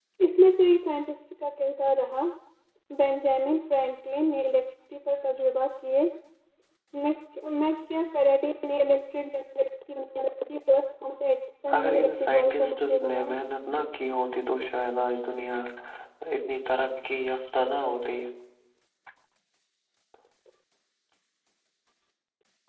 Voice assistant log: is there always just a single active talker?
No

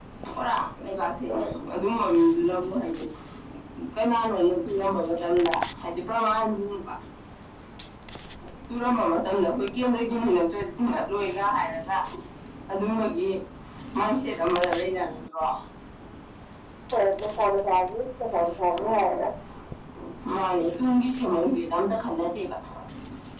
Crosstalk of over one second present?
No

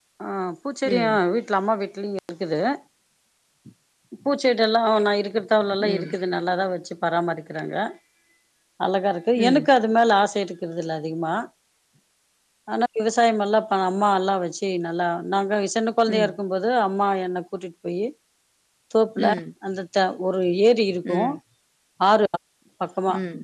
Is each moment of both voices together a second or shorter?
Yes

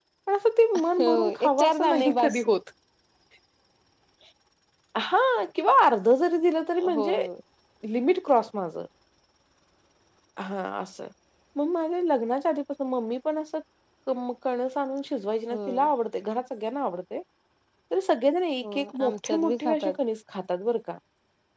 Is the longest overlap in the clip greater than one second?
Yes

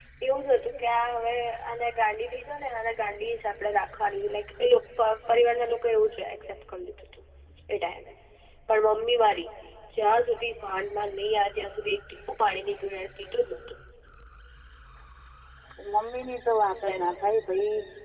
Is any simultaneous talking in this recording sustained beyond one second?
No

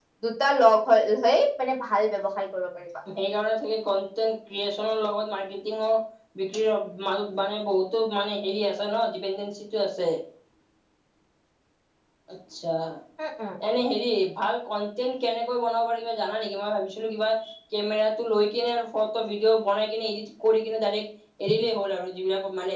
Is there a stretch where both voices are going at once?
No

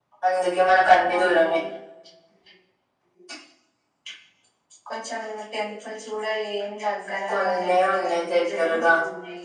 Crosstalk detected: Yes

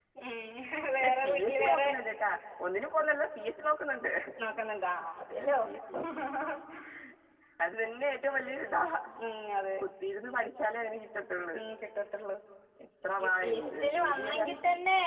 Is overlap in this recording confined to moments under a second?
No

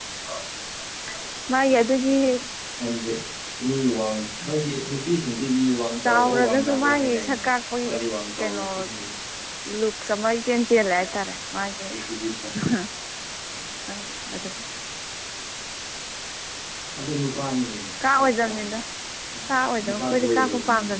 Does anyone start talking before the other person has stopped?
Yes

